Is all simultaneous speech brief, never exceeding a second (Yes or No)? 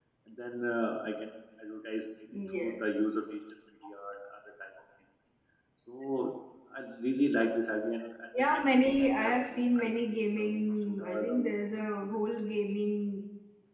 No